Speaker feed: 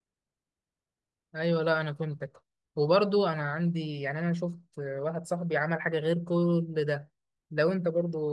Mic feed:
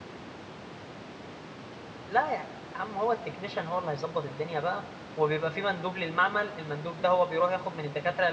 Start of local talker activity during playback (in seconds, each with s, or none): 2.1 s